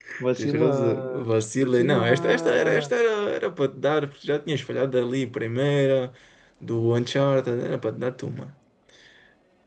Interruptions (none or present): present